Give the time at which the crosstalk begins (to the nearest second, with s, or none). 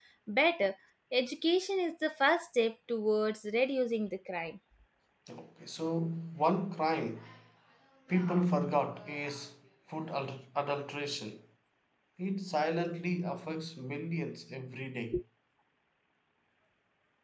none